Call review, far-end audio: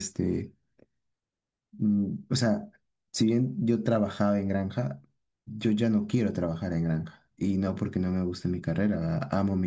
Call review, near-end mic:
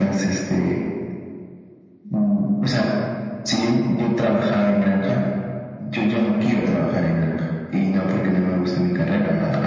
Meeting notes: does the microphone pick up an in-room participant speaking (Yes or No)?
No